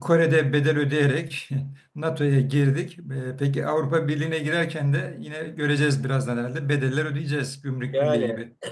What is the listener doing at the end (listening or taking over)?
taking over